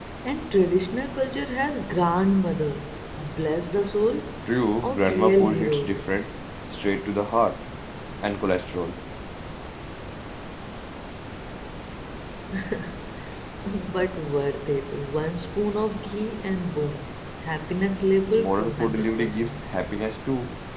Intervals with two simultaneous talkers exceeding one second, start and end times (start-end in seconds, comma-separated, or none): 4.8-6.1, 18.3-19.6